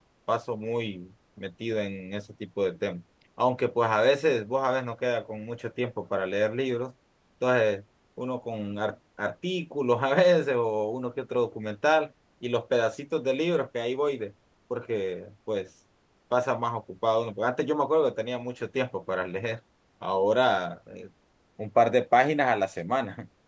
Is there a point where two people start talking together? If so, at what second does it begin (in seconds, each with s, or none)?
none